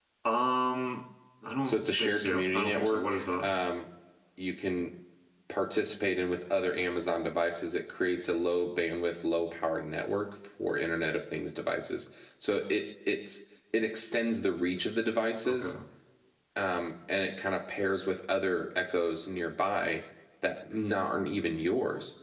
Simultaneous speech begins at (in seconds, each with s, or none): 1.6 s